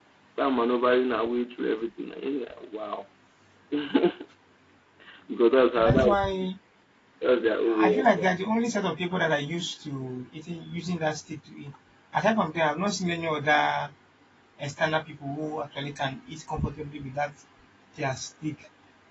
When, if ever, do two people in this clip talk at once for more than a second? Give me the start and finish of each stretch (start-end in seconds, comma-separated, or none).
none